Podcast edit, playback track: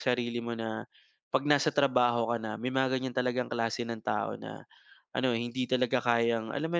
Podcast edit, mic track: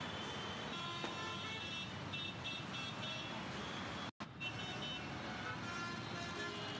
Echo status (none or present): none